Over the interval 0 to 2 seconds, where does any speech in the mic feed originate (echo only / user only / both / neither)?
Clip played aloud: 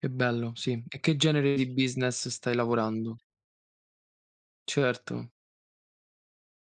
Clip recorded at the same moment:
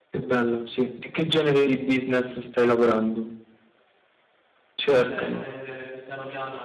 echo only